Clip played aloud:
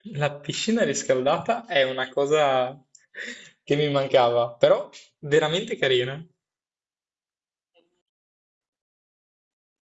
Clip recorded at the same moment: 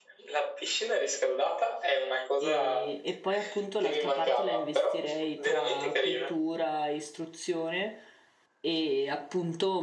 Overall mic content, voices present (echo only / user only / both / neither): both